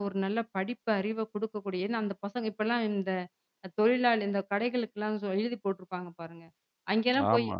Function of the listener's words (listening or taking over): listening